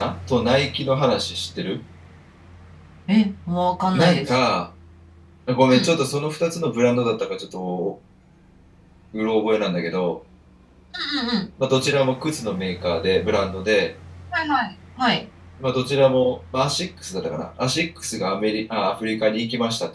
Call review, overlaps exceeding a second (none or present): none